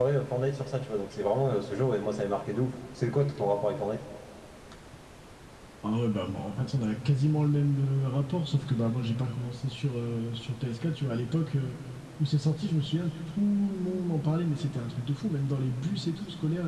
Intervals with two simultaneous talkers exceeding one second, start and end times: none

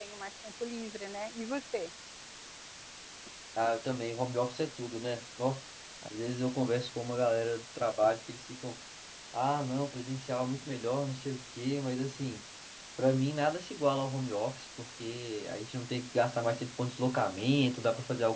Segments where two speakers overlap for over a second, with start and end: none

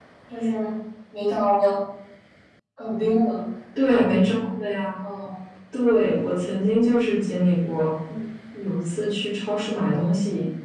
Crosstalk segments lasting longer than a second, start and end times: none

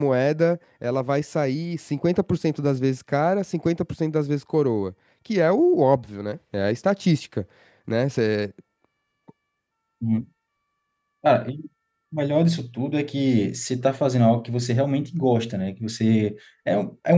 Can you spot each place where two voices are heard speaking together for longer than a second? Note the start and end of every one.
none

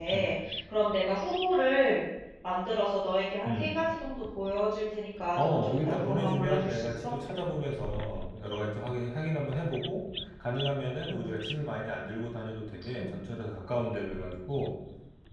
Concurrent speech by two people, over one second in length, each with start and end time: 5.4-7.2

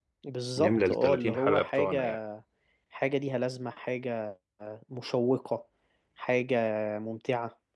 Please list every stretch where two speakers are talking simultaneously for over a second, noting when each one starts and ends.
0.6-2.2

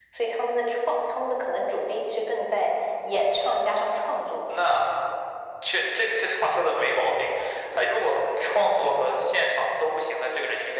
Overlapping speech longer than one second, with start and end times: none

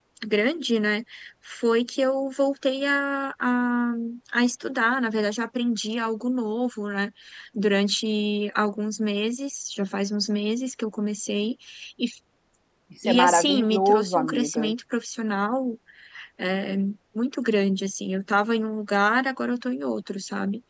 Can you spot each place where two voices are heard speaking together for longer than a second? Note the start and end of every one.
13.0-14.7

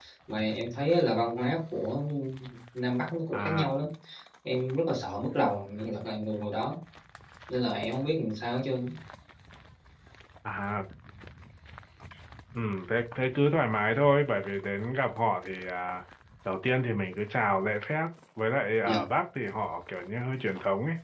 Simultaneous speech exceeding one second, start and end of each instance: none

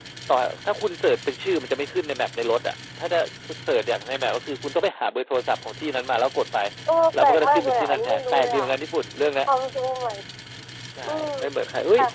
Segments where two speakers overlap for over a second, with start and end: 7.2-8.6

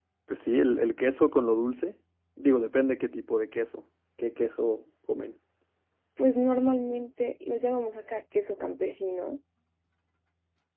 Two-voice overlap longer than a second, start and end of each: none

